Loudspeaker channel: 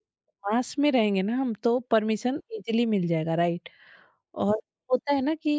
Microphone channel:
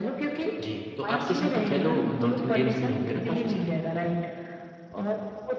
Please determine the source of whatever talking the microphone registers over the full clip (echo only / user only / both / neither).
both